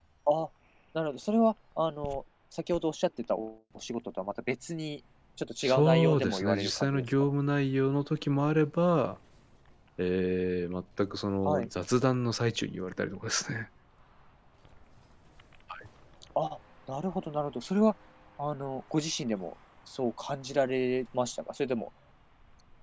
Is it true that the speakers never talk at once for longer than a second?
No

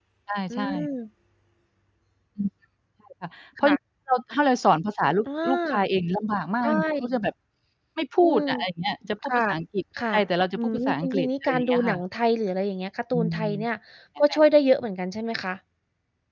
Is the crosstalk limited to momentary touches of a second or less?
No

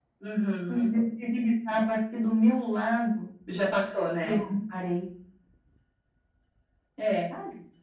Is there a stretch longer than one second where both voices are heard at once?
No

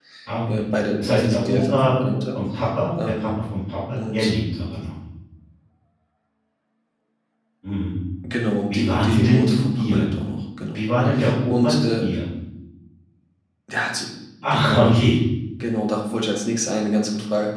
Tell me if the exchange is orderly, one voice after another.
No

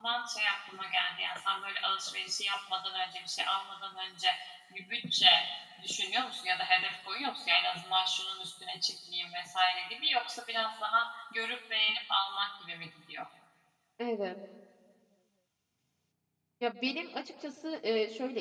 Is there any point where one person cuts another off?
No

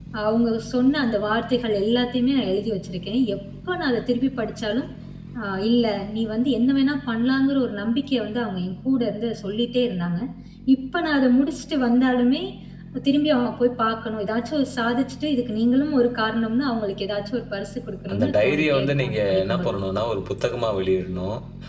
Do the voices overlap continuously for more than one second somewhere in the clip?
Yes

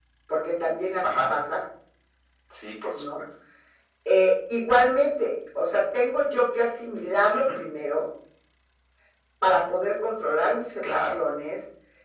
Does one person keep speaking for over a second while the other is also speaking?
No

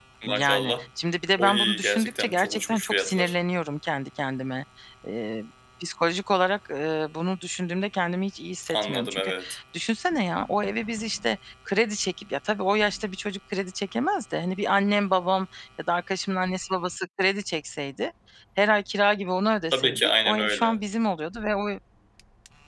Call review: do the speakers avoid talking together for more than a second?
No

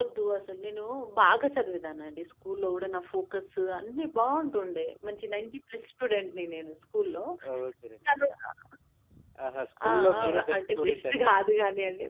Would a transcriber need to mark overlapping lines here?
Yes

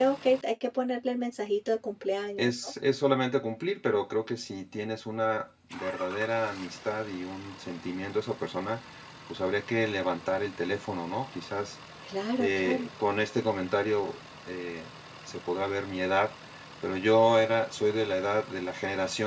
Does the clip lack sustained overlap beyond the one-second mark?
Yes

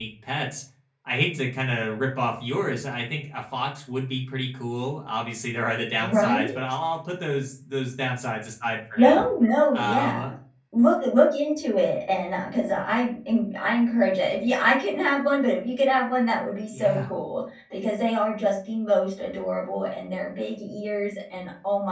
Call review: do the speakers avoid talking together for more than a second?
Yes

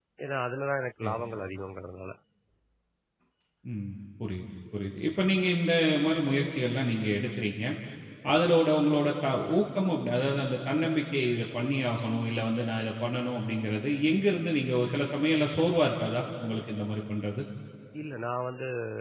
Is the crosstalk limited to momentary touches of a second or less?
Yes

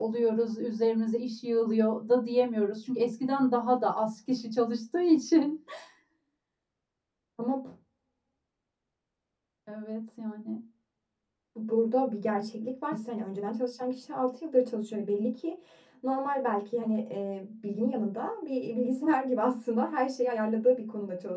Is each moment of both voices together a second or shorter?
Yes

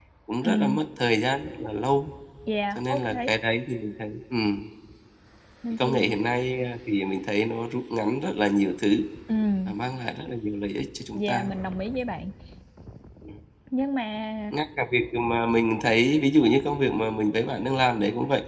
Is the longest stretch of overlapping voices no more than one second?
Yes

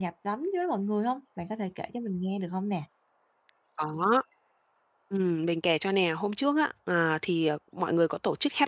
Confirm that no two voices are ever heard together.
Yes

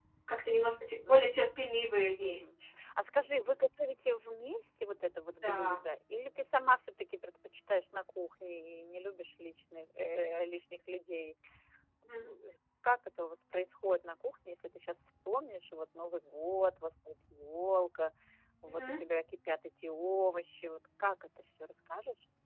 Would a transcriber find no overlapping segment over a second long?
Yes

